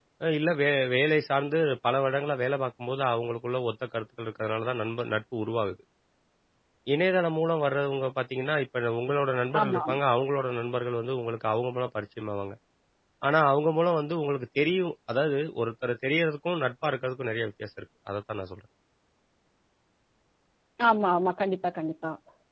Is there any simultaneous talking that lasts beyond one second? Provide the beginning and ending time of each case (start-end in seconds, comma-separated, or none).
none